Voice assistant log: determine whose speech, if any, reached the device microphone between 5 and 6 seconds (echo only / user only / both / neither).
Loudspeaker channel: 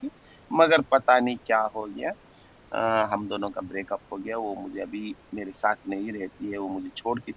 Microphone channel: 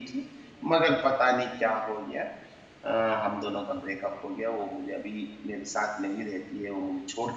echo only